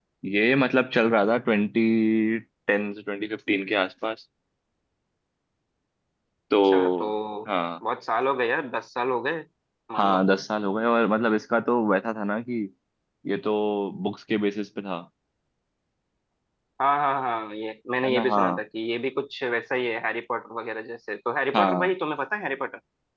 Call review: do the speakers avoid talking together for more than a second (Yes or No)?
Yes